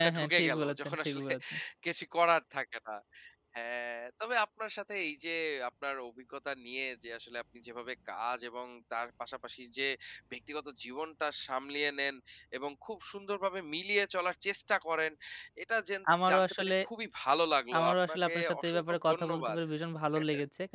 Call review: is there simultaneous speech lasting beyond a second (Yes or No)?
Yes